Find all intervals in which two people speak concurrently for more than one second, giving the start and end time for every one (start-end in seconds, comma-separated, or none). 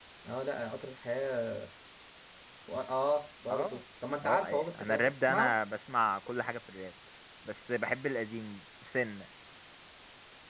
4.2-5.6